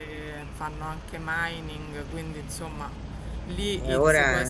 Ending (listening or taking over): listening